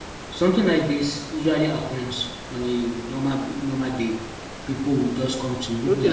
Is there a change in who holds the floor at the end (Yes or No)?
Yes